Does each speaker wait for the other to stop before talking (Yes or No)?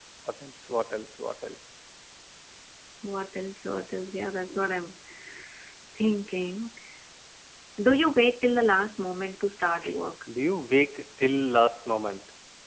Yes